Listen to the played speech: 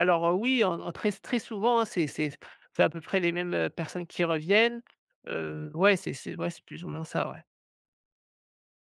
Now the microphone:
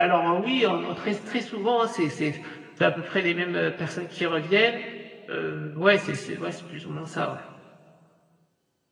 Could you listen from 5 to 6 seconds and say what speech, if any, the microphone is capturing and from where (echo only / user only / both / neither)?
echo only